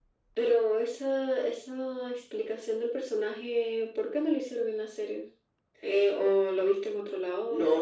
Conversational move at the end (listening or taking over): taking over